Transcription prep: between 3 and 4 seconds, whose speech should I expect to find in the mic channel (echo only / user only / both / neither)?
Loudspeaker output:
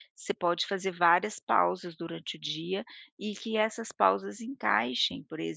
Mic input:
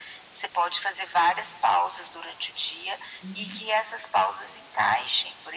both